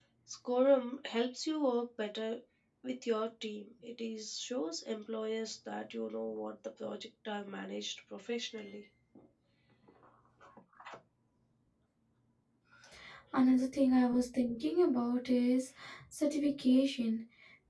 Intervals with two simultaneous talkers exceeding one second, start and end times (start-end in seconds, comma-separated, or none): none